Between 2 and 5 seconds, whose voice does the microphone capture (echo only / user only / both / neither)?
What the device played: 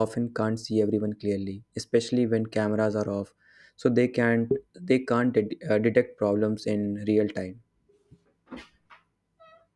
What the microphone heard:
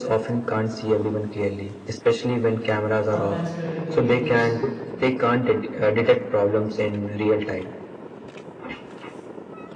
both